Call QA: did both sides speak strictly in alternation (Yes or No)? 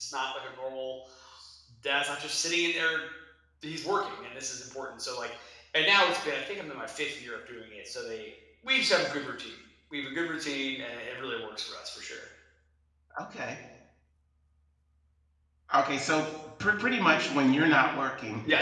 Yes